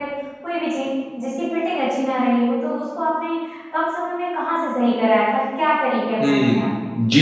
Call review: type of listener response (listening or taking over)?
taking over